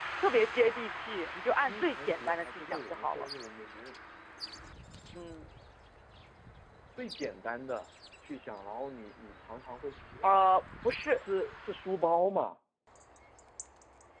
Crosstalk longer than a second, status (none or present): present